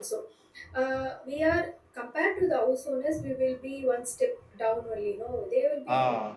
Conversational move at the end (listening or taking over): listening